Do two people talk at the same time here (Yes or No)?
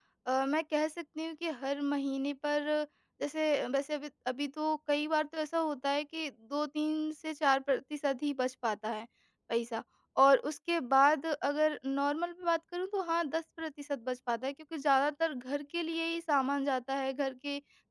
No